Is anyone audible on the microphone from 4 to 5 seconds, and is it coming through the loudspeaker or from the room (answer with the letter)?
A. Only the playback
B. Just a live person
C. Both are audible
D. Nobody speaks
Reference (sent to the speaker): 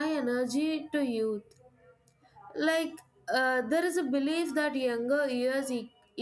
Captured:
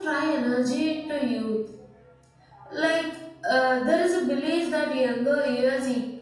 A